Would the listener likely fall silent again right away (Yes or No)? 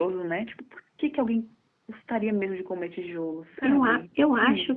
No